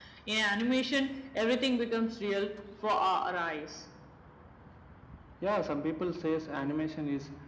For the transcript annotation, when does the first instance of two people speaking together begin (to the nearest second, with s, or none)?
none